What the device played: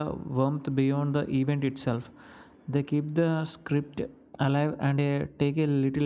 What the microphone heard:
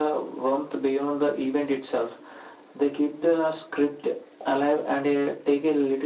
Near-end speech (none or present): none